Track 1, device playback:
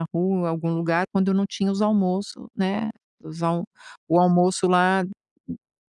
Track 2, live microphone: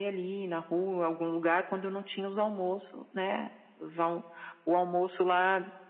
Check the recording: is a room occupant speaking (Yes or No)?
No